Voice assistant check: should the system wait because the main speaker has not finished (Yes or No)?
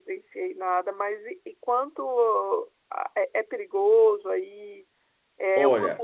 No